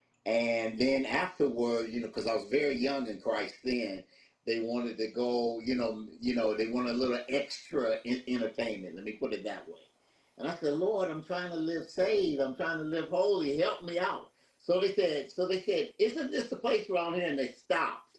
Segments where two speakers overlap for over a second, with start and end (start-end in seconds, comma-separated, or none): none